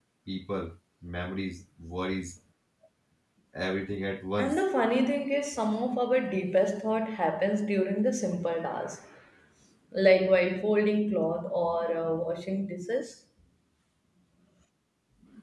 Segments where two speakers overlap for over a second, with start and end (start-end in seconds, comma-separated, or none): none